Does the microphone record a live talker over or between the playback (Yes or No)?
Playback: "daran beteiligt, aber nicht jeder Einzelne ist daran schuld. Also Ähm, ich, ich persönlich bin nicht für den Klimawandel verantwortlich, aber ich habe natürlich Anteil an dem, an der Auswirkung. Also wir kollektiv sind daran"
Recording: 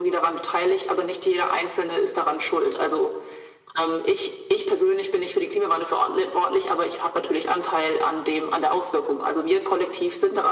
No